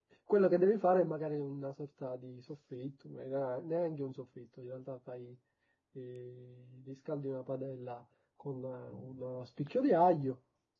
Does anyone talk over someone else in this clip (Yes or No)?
No